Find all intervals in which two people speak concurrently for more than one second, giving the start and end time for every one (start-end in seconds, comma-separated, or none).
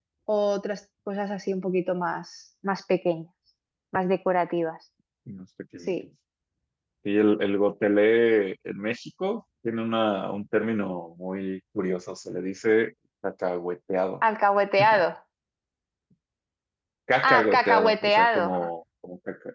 17.2-18.5